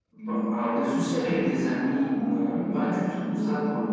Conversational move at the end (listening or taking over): listening